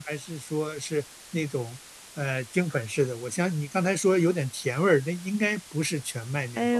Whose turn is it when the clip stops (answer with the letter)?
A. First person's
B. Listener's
B